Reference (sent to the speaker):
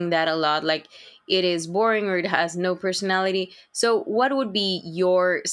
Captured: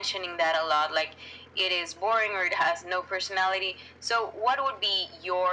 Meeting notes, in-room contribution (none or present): none